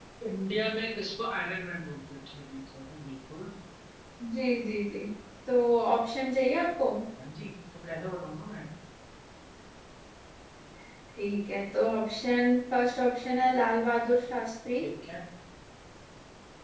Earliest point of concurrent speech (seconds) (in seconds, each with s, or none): none